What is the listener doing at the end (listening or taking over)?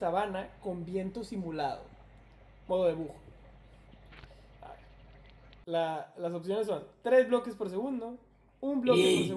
listening